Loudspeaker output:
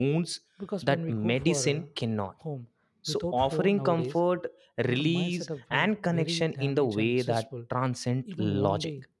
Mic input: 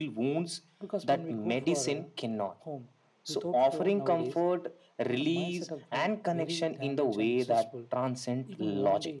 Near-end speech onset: none

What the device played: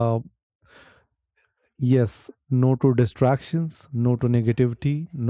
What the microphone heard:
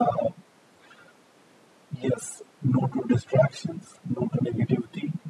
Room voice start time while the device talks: none

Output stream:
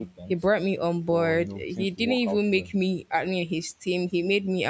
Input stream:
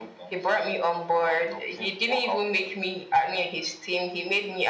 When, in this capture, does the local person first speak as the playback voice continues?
none

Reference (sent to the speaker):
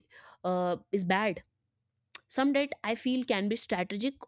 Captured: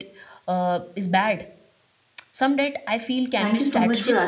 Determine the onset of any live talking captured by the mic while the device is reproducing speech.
3.4 s

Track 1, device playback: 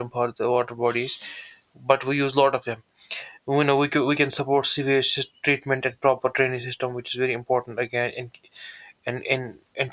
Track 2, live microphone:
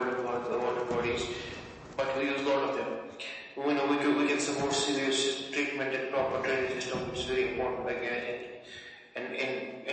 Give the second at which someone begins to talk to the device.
none

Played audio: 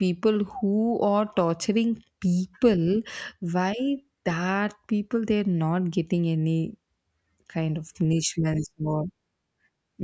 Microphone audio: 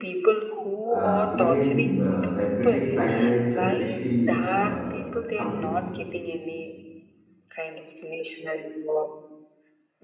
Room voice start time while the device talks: 0.9 s

